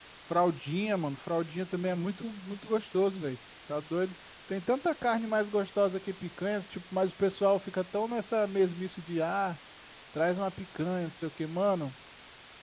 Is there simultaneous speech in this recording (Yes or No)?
No